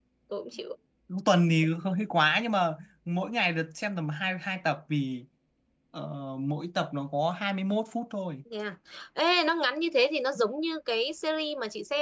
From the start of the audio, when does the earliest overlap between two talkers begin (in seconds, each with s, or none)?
none